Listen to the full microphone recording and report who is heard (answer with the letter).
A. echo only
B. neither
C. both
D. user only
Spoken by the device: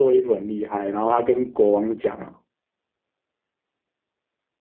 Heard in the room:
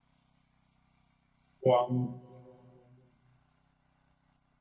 D